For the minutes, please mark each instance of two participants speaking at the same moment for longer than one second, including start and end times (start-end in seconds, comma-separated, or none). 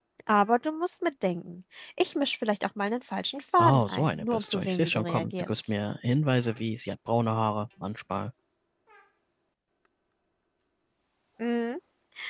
3.6-5.5